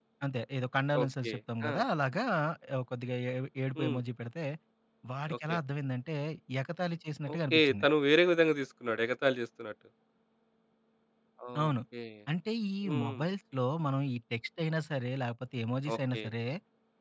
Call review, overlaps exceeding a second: none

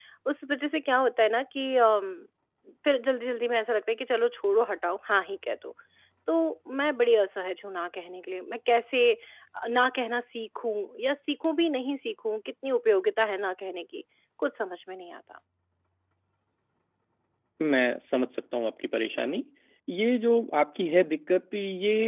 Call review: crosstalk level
none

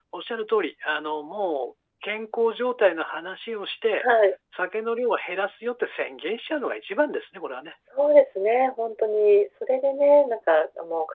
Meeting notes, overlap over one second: none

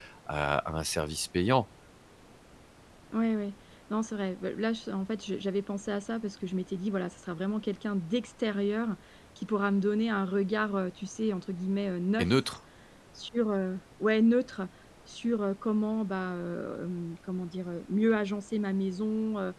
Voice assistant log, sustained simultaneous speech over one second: none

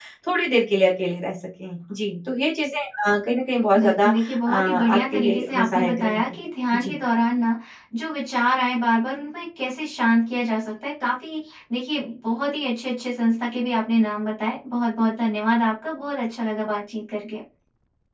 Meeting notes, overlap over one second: present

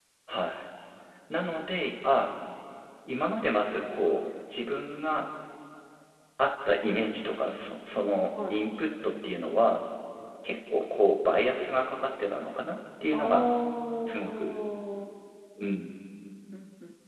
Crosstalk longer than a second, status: none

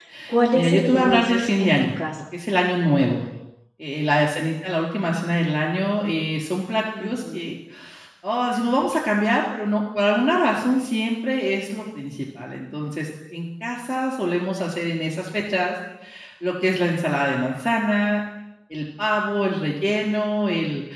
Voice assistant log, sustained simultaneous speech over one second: present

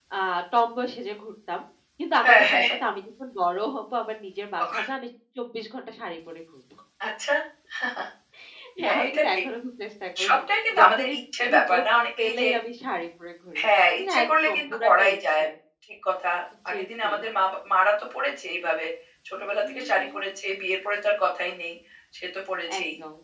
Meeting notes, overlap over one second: present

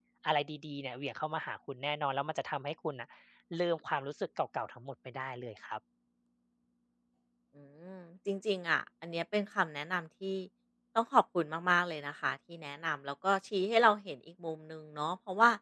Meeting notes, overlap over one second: none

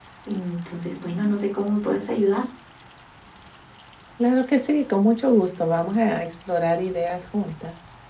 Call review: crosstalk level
none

